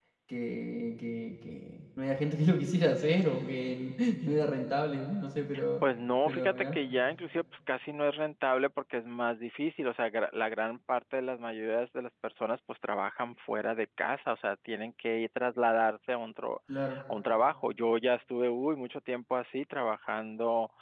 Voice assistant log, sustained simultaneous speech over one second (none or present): none